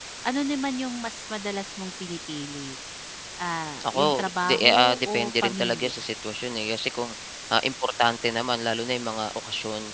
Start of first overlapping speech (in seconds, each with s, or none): 3.8 s